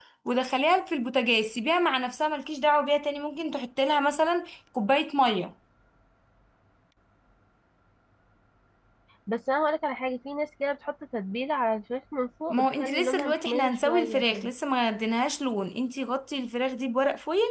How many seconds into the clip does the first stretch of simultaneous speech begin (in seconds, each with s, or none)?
12.5 s